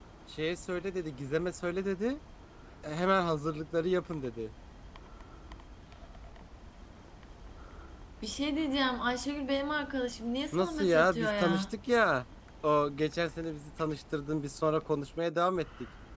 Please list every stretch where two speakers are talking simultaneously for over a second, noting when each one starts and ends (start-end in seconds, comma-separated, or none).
10.5-11.7